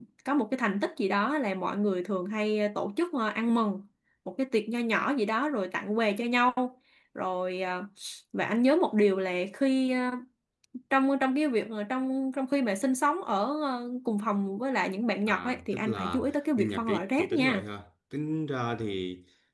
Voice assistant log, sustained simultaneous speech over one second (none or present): present